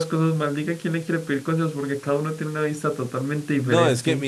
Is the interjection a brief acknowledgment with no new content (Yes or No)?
No